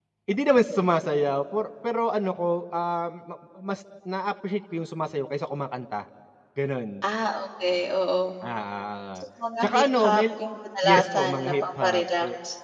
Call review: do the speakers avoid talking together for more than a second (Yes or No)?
No